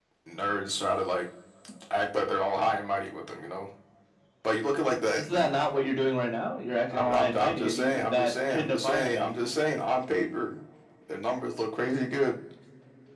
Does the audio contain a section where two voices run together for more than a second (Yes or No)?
Yes